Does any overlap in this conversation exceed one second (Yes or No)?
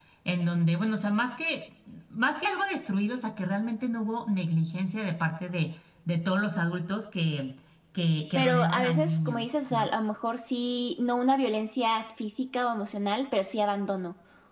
Yes